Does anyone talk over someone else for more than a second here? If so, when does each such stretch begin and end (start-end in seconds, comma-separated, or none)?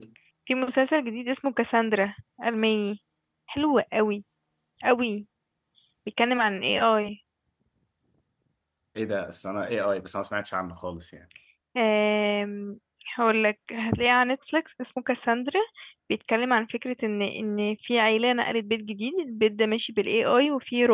none